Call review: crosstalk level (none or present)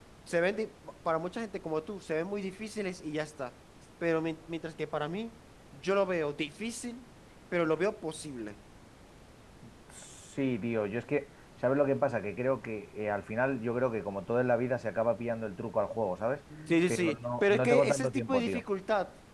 present